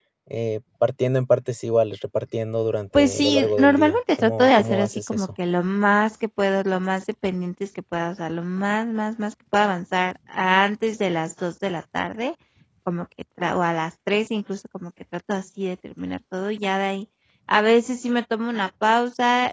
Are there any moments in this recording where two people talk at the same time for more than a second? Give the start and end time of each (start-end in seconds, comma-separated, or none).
2.9-5.3